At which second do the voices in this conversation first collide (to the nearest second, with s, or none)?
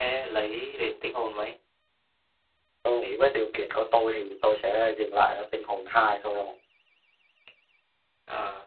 none